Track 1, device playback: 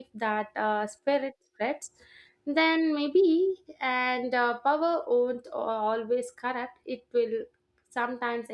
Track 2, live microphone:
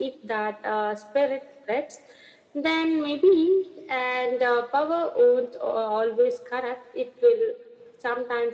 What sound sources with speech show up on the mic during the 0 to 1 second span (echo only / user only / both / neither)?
echo only